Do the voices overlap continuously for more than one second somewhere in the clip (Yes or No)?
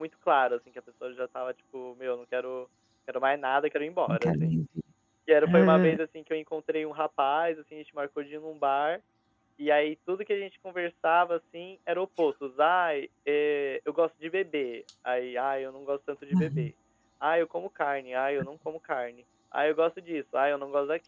No